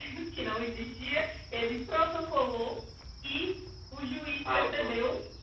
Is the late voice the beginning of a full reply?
No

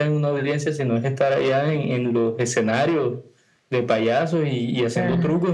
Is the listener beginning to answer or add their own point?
Yes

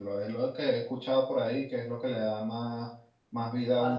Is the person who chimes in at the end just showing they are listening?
No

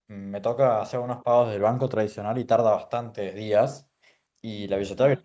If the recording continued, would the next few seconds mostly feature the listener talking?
No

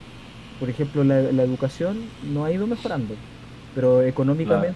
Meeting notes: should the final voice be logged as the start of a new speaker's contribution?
No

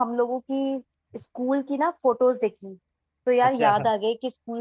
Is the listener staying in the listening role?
Yes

